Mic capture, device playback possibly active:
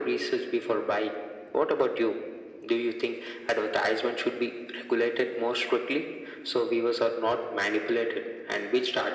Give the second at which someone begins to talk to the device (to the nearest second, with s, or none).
none